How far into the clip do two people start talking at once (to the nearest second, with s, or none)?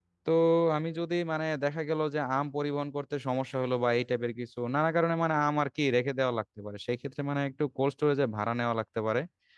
none